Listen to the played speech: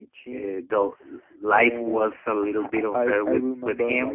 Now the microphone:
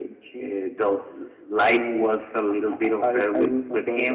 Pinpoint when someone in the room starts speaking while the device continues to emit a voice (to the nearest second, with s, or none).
none